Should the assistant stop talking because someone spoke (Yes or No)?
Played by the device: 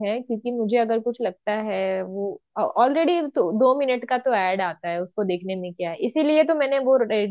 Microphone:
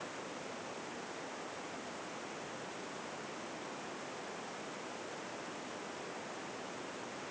No